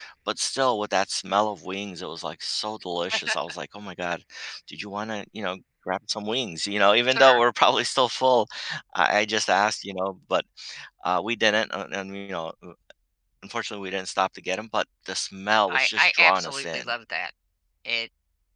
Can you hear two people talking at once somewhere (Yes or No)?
Yes